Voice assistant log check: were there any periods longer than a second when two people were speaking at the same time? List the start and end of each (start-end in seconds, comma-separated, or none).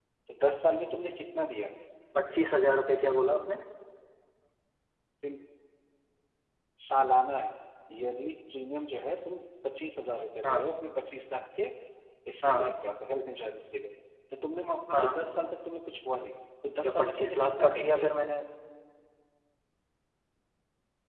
16.8-18.1